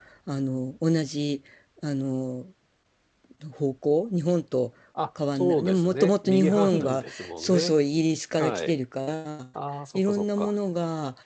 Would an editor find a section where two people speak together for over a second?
Yes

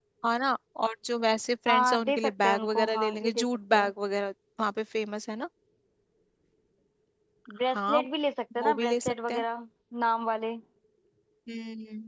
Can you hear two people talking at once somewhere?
Yes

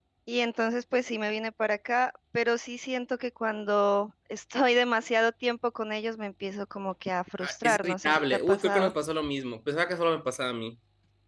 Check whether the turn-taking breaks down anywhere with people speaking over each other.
Yes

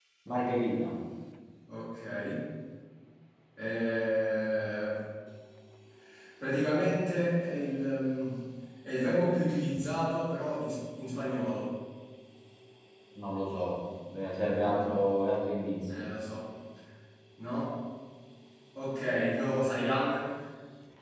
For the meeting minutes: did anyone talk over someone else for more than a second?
No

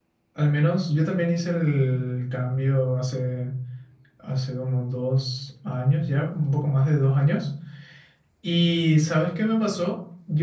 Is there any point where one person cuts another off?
No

